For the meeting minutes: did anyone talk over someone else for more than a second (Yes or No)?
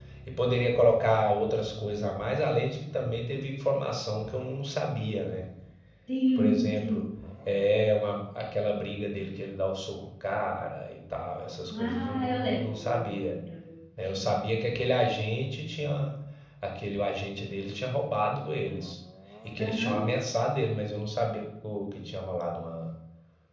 Yes